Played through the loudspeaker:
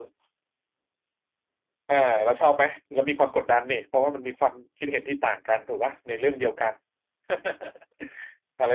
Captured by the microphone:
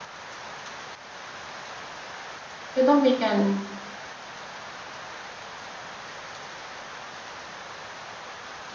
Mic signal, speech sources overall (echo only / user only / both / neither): user only